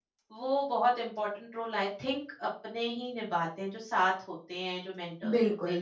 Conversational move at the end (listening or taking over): taking over